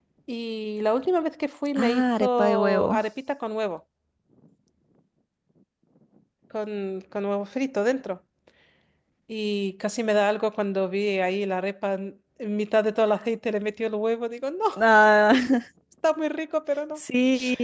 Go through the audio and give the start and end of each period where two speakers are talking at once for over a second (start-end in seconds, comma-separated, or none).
1.8-3.0